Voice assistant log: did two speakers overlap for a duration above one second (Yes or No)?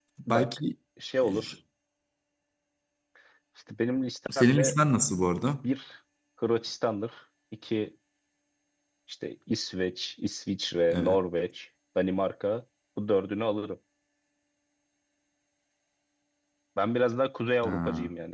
No